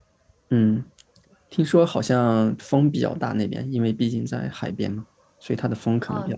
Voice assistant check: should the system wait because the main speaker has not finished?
No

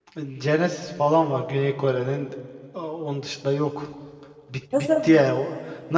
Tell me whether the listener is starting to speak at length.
No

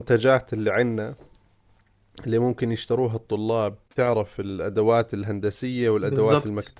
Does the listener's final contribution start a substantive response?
No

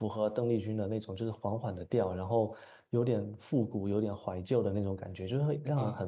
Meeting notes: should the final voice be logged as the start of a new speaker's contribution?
Yes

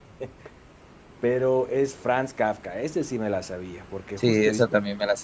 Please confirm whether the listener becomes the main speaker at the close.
Yes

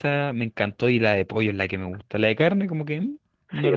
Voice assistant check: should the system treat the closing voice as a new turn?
Yes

